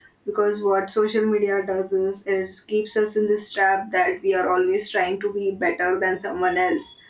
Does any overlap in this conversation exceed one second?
No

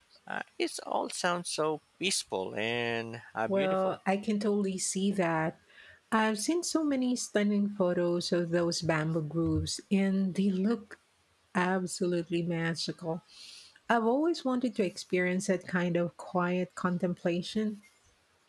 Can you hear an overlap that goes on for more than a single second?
No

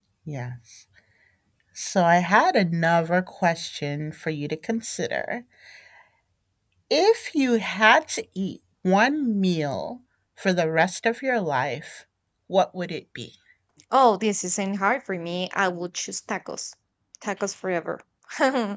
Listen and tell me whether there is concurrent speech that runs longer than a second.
No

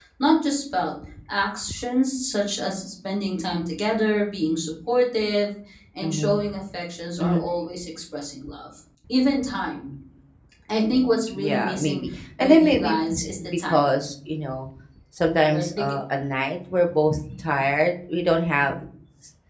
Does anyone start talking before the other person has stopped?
Yes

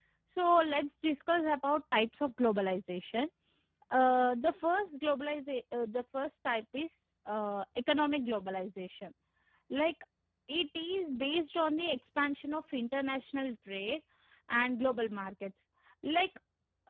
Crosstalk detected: No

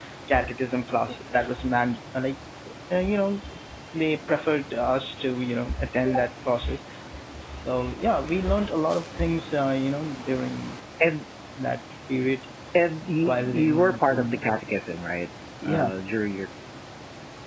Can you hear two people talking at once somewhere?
Yes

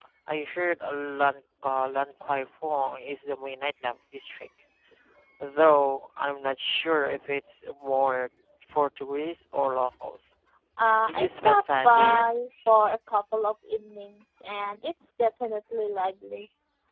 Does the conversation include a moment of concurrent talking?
Yes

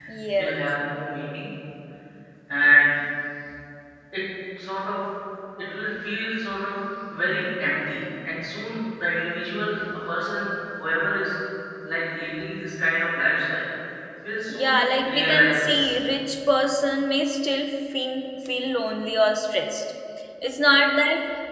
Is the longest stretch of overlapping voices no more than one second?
No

